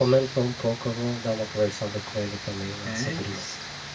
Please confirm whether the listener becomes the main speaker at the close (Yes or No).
Yes